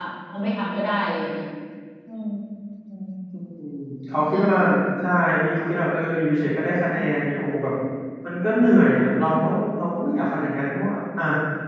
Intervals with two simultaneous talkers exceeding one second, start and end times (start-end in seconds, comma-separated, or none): none